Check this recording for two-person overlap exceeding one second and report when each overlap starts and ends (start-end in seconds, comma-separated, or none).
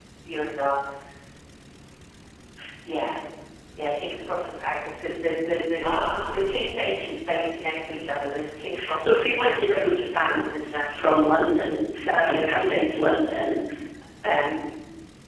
8.9-11.2